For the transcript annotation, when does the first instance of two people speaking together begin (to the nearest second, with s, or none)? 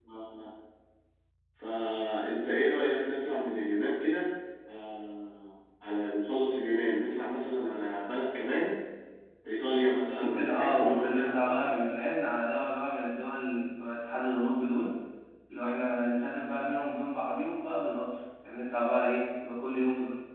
10 s